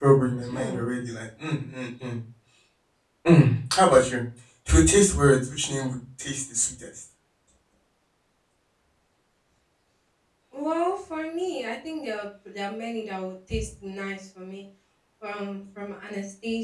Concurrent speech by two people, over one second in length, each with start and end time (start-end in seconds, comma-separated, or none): none